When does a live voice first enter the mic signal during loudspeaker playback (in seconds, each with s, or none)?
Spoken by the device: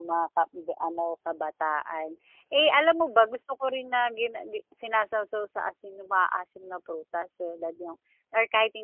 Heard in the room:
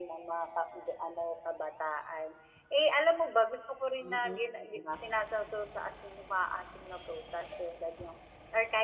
4.0 s